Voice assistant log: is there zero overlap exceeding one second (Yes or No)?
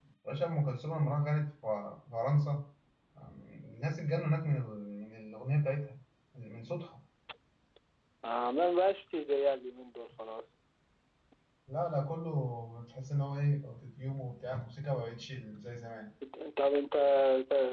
Yes